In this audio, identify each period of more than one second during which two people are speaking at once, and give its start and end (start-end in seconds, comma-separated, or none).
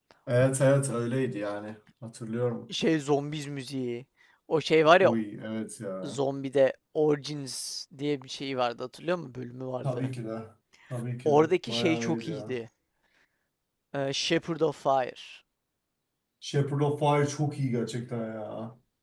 11.2-12.6